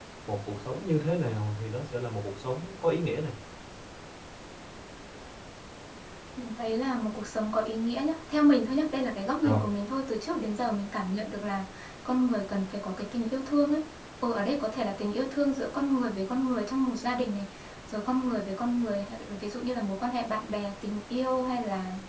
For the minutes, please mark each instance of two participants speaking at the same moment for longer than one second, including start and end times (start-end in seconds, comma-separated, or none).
none